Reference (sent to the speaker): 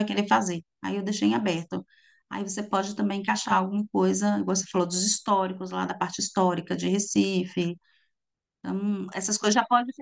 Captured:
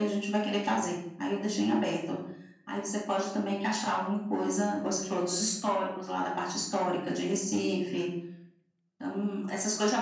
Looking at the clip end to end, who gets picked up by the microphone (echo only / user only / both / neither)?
echo only